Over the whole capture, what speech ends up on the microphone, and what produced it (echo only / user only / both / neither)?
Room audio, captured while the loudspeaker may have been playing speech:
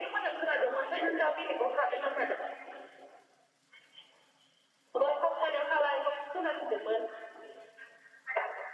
echo only